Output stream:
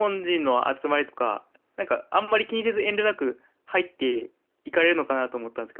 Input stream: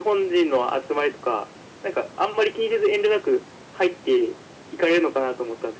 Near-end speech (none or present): none